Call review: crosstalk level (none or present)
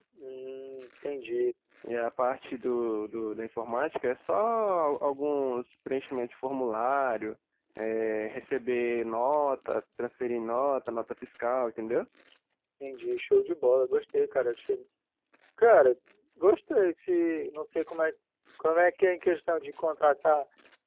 none